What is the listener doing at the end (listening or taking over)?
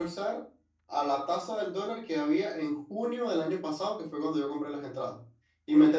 listening